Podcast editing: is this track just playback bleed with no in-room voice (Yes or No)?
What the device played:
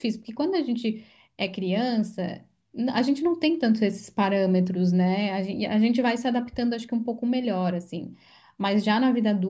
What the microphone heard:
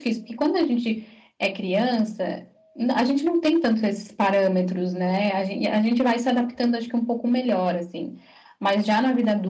Yes